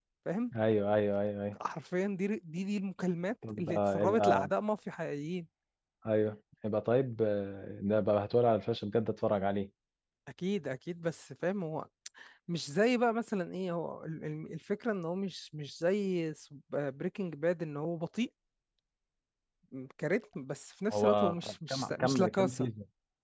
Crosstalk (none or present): present